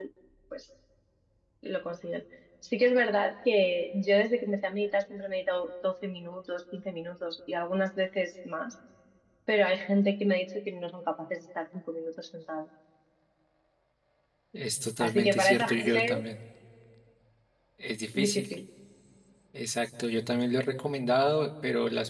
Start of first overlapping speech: 15.0 s

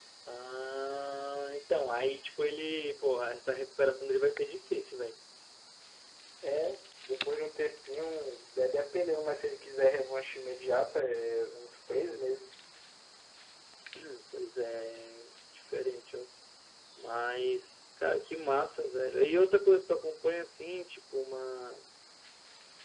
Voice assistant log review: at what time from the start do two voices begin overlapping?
none

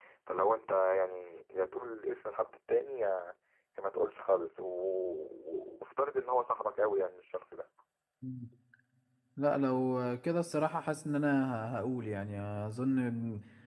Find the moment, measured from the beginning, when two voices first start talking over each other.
none

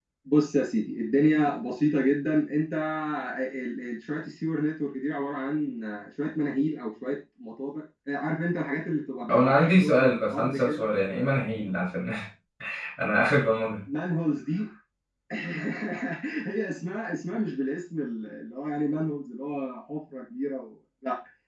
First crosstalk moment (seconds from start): 9.3 s

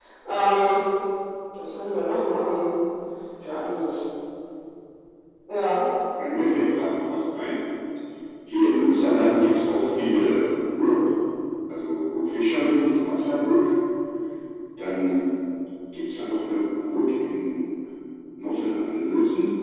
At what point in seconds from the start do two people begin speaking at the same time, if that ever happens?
none

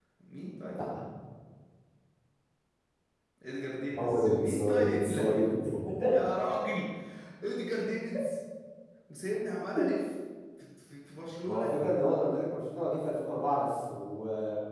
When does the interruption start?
3.9 s

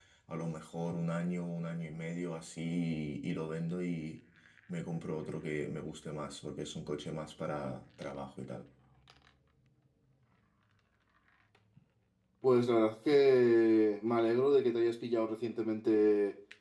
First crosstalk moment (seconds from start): none

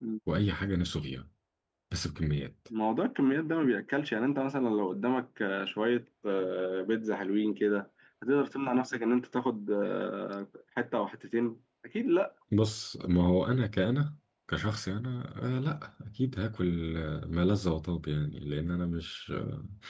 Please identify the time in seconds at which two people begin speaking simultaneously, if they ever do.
none

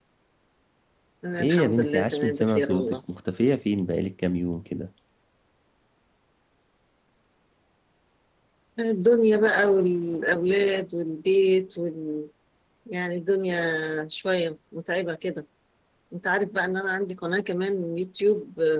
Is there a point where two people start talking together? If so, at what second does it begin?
1.4 s

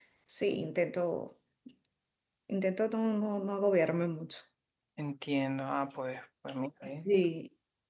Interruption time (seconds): none

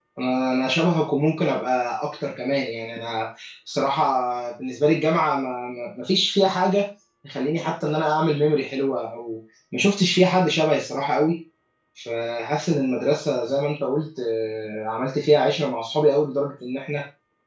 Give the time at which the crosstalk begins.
none

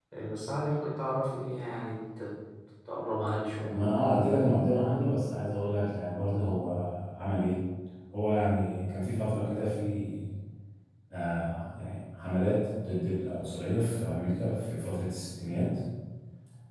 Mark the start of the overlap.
none

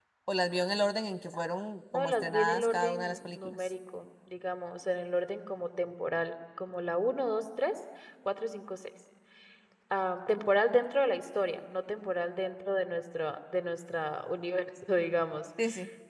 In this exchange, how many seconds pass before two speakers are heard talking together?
1.9 s

